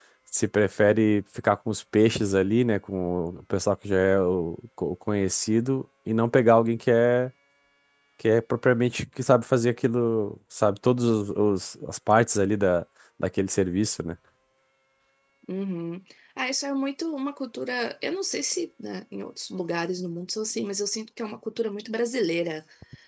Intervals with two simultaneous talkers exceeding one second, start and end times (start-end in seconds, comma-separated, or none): none